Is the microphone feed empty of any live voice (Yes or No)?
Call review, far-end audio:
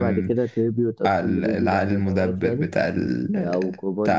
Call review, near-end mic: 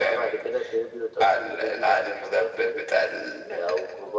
Yes